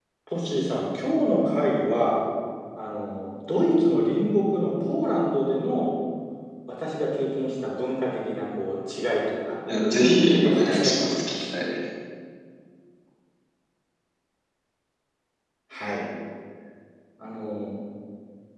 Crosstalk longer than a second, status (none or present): present